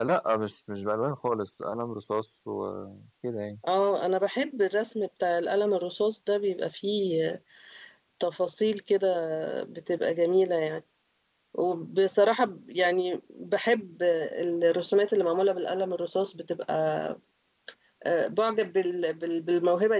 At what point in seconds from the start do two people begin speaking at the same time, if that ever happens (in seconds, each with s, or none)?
none